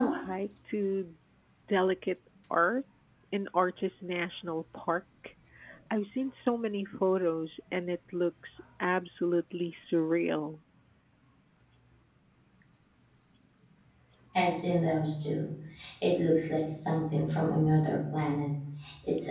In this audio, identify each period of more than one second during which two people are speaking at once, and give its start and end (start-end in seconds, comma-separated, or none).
none